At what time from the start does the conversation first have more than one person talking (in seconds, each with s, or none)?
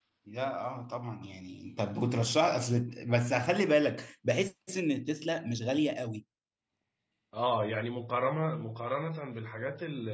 none